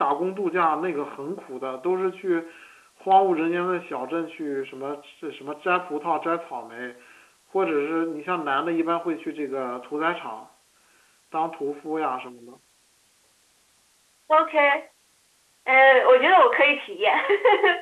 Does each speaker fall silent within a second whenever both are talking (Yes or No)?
Yes